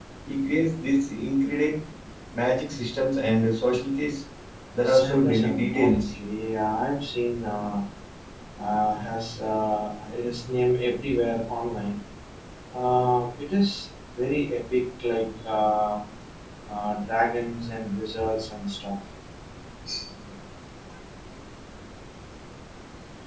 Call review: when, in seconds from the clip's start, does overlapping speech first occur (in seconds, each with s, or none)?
4.8 s